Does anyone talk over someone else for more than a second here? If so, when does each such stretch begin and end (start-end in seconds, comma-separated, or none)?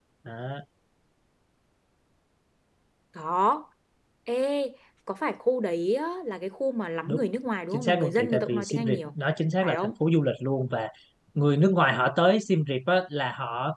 7.7-9.1